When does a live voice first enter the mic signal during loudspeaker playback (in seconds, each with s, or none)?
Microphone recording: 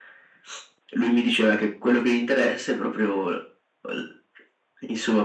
none